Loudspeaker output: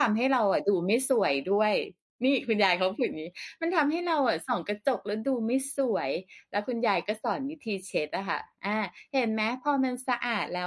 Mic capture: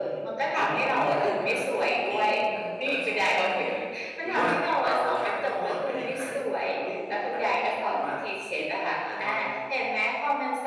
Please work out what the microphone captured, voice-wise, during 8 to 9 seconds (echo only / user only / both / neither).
both